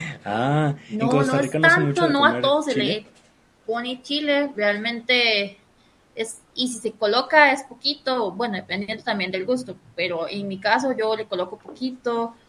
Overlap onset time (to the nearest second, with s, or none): 1 s